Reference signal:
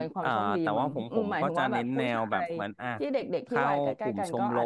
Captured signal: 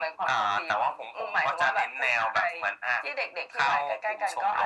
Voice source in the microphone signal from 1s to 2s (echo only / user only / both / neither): echo only